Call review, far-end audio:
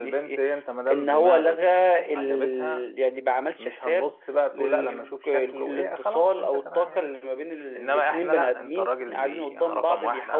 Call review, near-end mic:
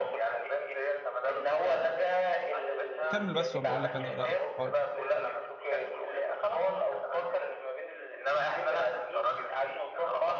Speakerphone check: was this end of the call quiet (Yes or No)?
No